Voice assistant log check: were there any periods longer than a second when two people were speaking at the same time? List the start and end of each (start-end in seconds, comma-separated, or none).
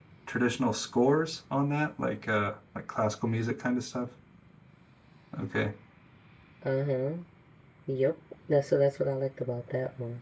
none